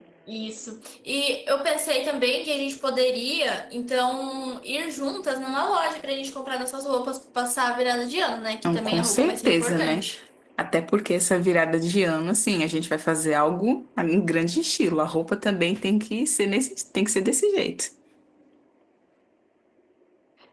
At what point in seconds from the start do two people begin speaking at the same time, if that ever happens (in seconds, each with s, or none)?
8.6 s